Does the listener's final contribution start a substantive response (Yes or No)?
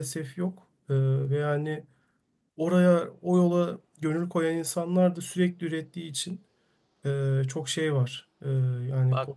Yes